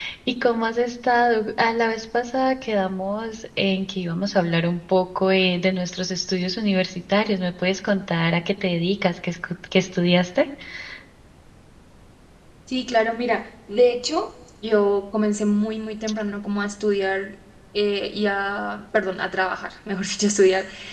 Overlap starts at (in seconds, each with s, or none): none